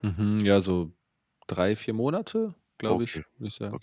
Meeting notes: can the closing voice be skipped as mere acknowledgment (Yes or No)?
No